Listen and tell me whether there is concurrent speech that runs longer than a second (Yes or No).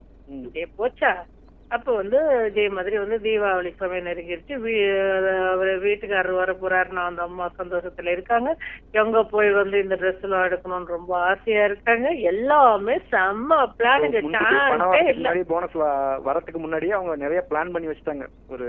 Yes